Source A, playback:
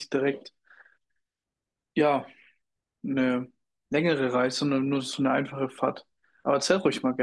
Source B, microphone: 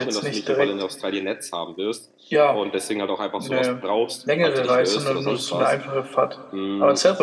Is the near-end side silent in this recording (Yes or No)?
No